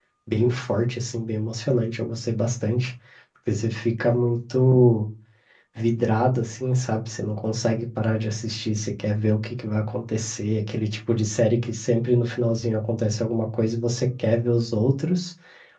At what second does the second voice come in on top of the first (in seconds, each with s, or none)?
none